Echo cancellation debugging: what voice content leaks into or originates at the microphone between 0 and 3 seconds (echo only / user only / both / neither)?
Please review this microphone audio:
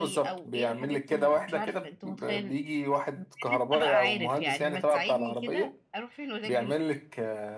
both